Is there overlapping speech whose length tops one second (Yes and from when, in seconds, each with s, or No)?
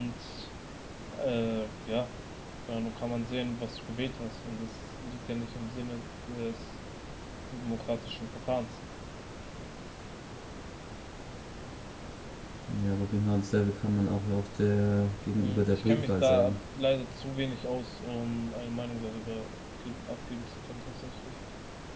Yes, from 15.3 s